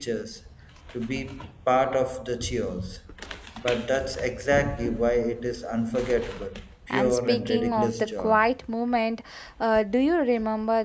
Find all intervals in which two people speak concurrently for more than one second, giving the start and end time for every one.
6.9-8.3

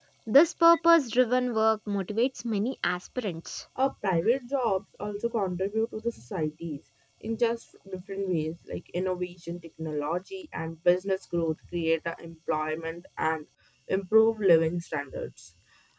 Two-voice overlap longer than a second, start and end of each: none

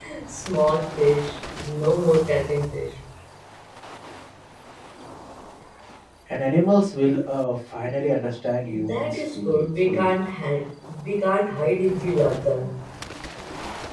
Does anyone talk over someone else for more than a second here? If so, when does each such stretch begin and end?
8.8-10.1

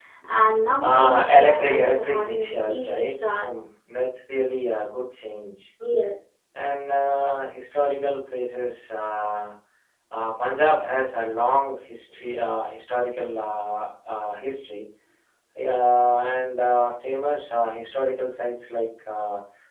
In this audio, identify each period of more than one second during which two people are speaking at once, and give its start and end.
0.8-3.4

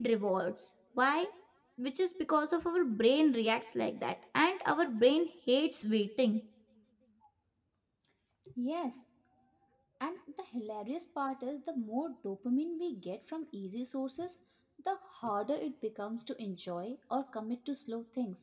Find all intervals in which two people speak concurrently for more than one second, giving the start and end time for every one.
none

